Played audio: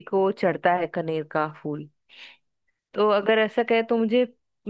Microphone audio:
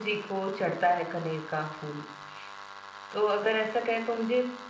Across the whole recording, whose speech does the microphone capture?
echo only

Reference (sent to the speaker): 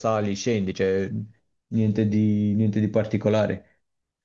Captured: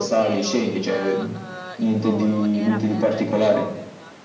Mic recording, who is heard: both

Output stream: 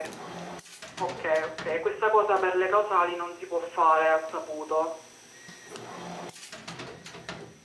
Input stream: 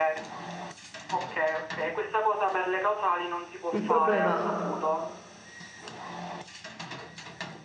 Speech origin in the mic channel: both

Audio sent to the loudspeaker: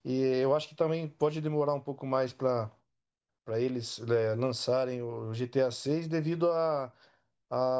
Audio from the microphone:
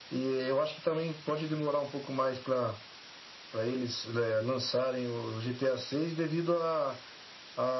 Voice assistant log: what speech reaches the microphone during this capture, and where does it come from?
echo only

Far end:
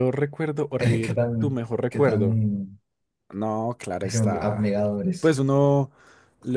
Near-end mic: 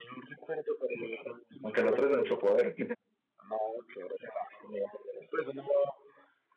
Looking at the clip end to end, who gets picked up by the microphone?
both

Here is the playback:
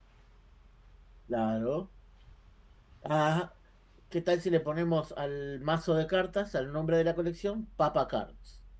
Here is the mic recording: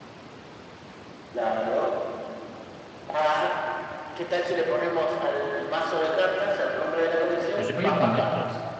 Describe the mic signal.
both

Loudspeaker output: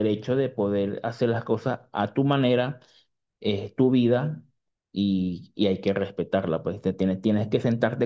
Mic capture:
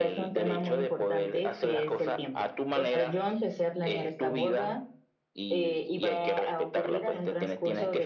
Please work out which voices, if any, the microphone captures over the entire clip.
both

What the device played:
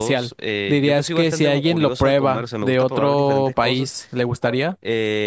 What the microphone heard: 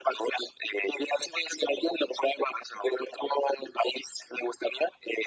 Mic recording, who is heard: echo only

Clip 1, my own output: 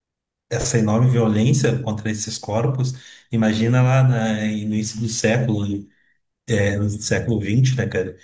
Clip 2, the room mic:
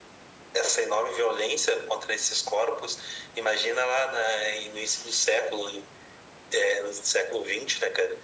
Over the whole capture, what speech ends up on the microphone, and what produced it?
echo only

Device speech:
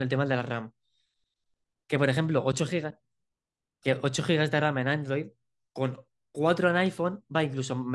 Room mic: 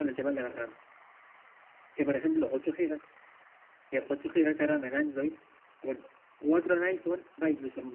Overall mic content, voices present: echo only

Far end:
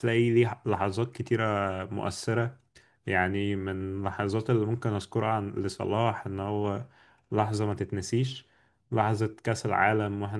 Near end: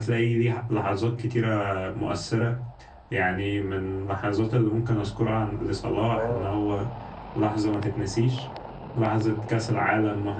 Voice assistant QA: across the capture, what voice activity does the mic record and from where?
both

